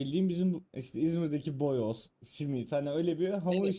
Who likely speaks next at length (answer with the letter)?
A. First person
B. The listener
B